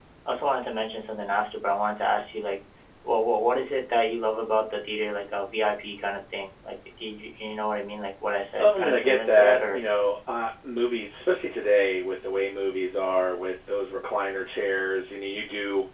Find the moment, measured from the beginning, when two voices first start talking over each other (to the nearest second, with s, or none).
9 s